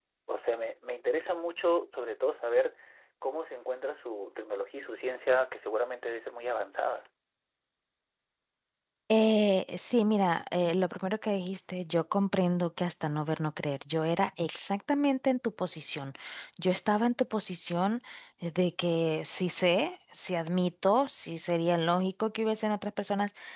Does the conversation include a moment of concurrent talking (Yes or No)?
No